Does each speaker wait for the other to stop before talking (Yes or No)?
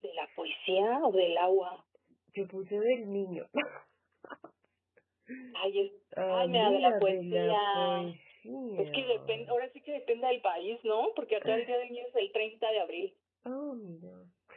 No